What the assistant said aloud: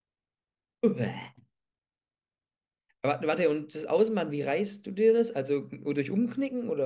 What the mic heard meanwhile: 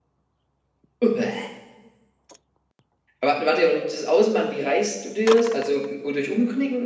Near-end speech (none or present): none